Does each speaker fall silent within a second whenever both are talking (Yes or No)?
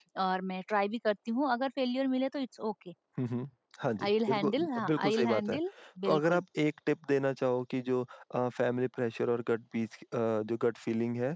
No